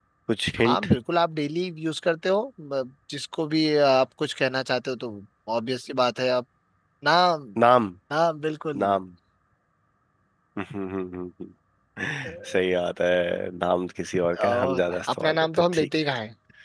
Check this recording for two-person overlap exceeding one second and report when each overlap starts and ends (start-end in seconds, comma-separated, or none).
14.4-15.9